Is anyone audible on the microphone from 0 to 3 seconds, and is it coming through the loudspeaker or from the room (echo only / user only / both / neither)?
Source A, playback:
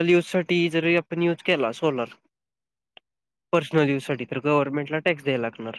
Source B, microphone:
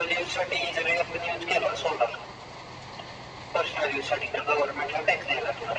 echo only